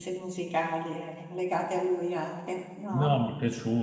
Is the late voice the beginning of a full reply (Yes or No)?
Yes